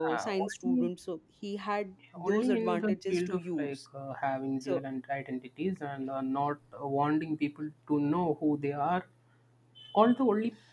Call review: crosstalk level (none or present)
present